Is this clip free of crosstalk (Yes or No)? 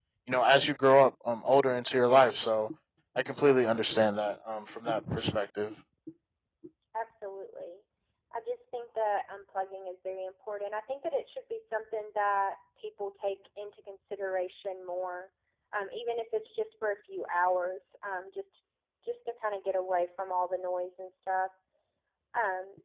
Yes